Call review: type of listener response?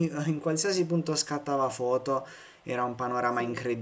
listening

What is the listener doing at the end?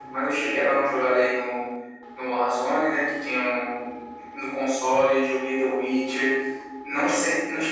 listening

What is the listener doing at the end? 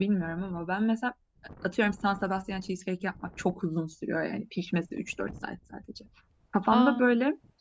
listening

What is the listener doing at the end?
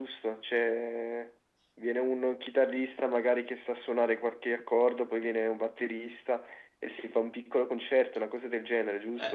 taking over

